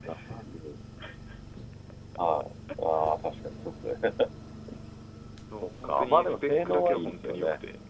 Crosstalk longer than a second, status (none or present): present